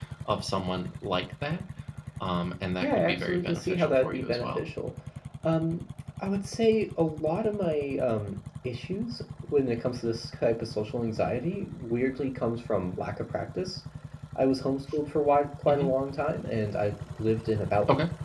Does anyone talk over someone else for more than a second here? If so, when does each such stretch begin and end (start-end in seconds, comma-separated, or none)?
2.8-4.6